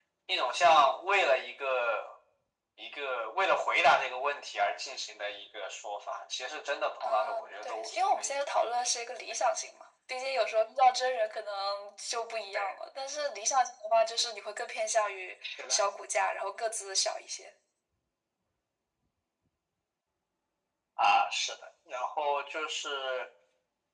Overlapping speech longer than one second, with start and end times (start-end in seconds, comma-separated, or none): 7.0-8.4